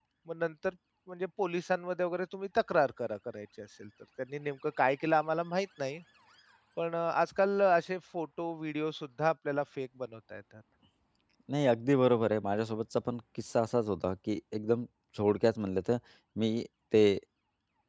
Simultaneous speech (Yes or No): No